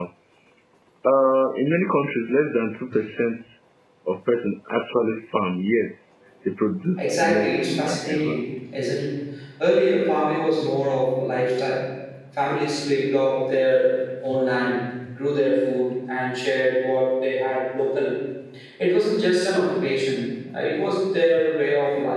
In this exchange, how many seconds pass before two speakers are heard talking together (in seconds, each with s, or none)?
7.0 s